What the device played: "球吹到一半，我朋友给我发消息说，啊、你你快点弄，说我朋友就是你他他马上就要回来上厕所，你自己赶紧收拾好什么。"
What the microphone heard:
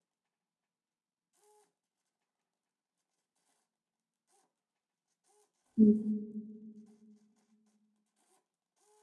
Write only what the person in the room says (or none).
嗯